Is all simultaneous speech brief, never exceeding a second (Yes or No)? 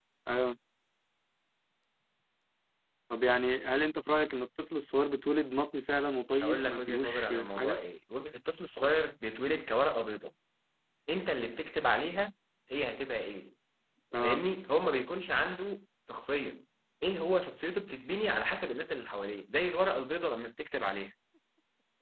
No